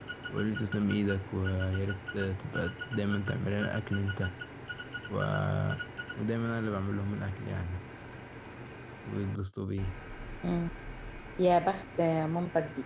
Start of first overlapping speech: none

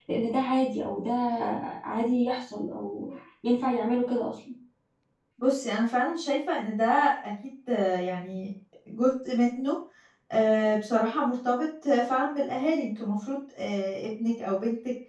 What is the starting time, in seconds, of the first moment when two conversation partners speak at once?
none

